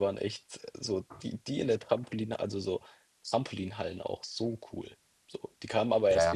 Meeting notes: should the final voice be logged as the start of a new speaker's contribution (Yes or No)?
Yes